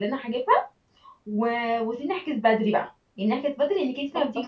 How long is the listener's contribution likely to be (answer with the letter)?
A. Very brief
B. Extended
A